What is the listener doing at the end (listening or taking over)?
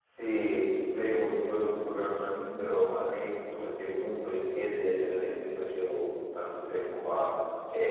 listening